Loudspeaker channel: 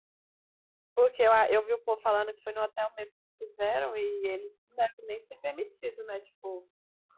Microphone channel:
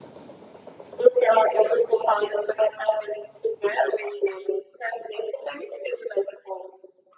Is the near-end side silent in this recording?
Yes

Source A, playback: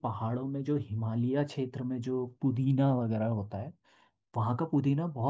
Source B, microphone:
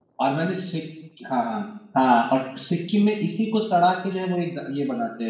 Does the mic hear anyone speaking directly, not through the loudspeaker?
Yes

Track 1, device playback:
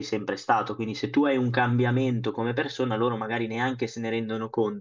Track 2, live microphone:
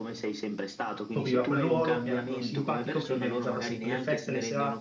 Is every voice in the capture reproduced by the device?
No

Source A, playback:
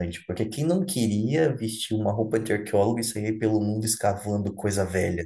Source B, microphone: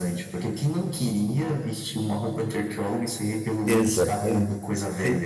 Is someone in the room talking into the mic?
Yes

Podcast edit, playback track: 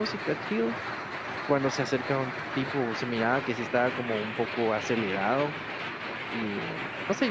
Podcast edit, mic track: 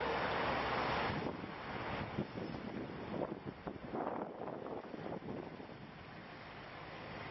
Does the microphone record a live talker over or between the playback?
No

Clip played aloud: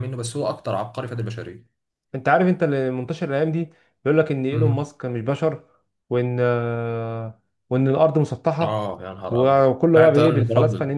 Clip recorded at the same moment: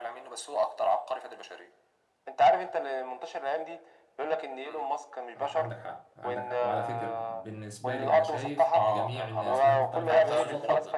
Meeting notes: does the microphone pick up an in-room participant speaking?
Yes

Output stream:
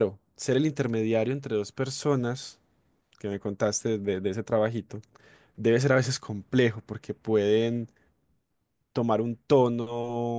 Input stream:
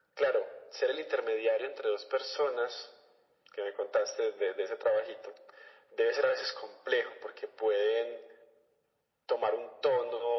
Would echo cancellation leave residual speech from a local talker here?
No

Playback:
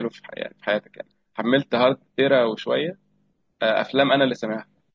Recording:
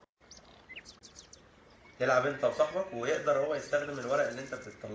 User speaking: Yes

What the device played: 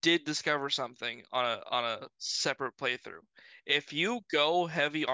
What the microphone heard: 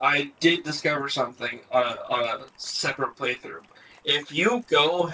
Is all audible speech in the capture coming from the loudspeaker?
Yes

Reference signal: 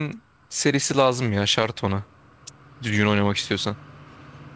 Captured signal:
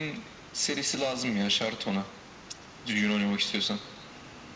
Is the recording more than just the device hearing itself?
No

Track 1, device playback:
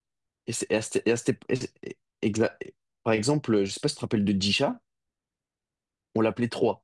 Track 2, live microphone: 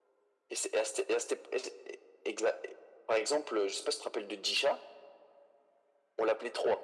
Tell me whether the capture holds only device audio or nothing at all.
Yes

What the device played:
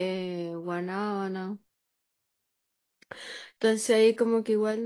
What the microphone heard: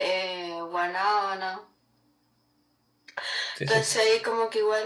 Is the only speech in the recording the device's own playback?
No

